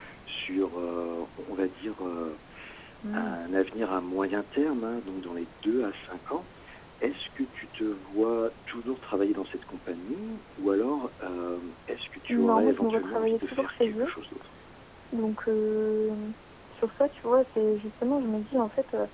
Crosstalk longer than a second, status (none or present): present